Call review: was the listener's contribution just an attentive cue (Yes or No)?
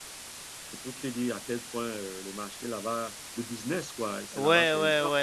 No